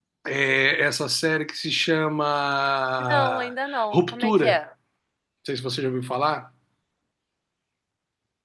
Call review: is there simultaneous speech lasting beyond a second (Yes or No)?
Yes